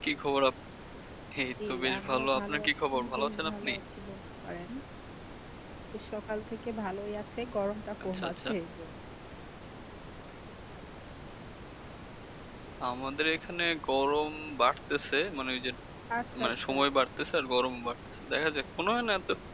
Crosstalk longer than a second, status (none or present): present